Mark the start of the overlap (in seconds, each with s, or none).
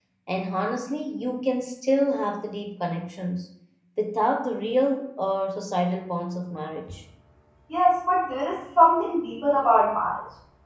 none